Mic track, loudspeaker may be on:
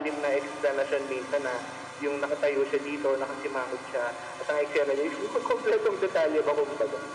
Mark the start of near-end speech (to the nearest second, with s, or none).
none